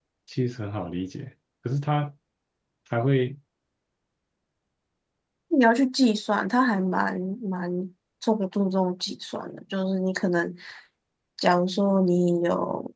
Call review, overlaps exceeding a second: none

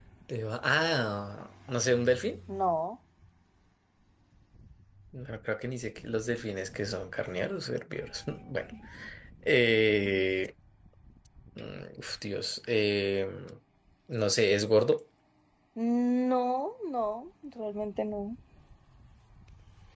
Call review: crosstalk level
none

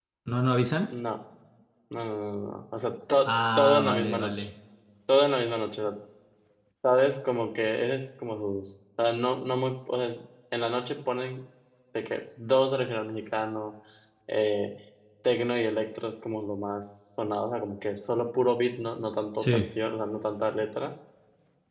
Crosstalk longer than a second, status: present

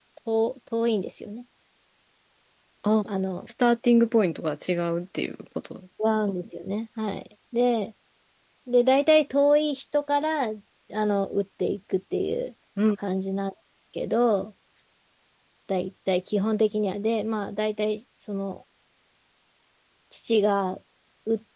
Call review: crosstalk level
none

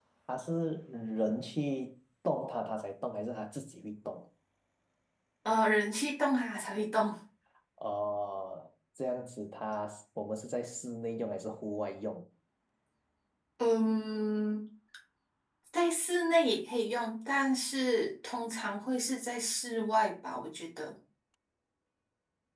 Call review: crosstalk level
none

